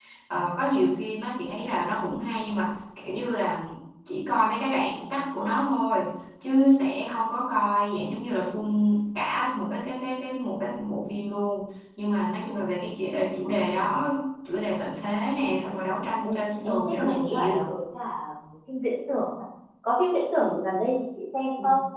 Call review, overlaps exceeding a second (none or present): present